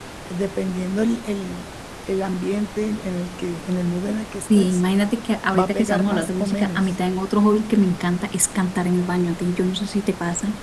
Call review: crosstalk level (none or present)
present